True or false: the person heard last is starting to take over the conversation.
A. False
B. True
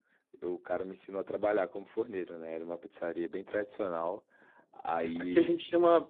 B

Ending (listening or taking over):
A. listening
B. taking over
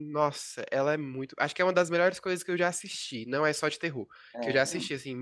A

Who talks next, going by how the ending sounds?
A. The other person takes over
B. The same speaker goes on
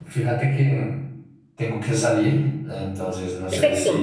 B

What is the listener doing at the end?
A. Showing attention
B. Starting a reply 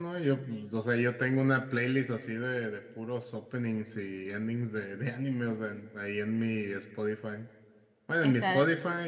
A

